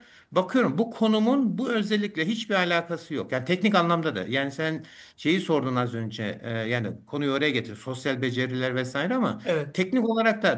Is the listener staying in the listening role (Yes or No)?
Yes